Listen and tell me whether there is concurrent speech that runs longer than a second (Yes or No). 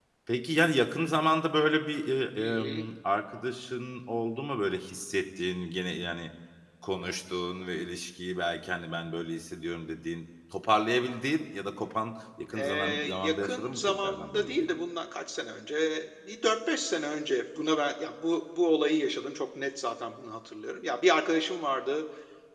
Yes